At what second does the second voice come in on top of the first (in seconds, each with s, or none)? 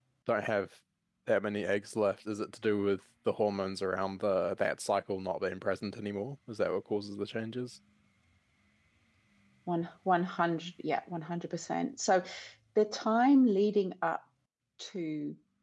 none